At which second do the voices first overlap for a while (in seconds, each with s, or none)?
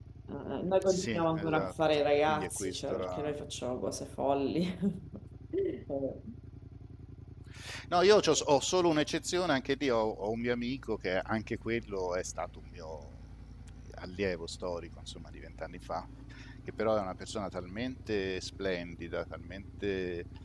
0.8 s